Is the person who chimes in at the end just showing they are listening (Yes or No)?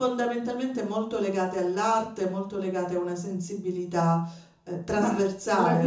No